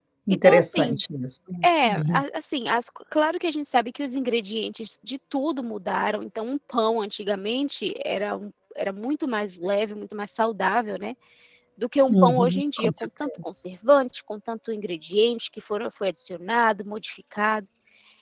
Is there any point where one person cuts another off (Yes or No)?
Yes